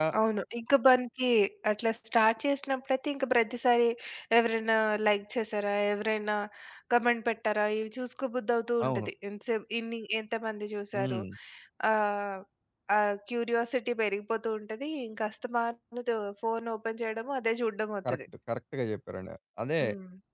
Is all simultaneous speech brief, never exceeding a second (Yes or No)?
Yes